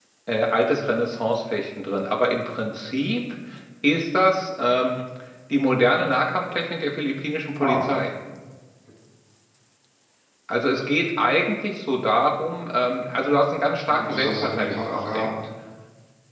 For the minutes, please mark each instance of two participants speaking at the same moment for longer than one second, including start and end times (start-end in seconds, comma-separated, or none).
13.9-15.3